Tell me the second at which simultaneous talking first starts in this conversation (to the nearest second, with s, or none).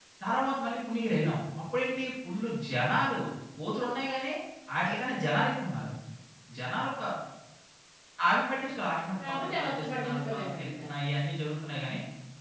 9 s